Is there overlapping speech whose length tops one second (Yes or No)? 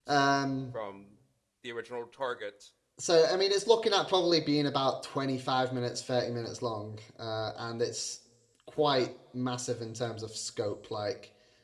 No